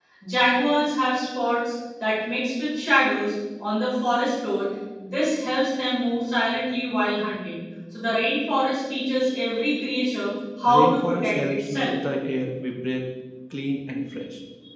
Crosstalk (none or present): present